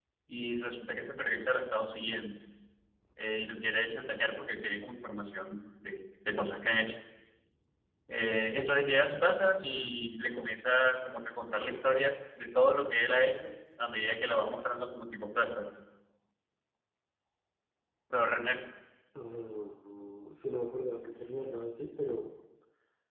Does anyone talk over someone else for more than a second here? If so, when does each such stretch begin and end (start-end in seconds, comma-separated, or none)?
none